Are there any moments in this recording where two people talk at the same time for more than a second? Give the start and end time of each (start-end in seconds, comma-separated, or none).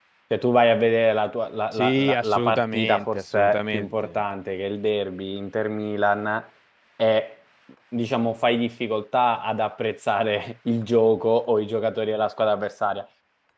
1.7-4.2